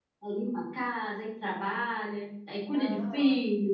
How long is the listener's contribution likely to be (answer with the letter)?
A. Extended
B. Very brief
A